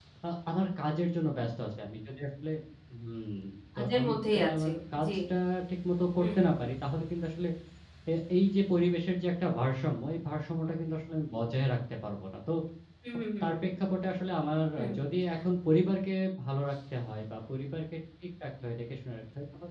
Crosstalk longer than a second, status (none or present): present